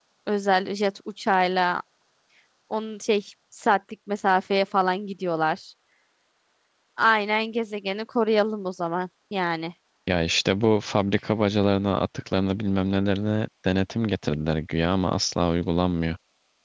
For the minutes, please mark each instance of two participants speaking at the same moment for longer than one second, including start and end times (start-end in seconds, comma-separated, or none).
none